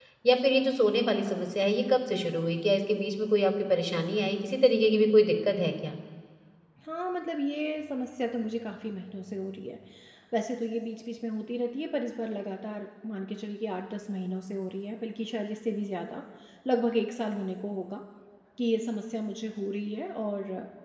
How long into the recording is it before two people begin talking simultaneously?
none

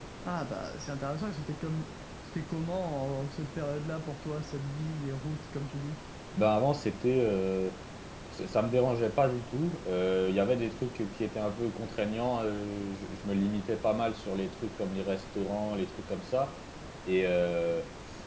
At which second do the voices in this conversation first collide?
none

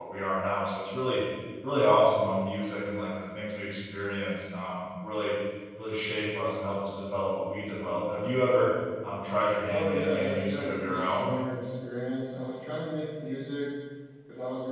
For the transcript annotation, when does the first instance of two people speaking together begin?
10 s

